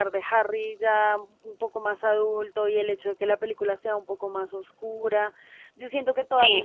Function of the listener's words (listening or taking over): listening